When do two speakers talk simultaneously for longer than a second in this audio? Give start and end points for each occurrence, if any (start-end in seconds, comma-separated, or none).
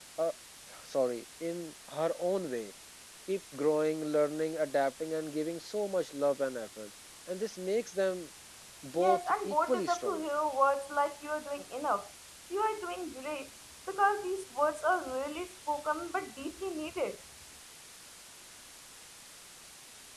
9.0-10.2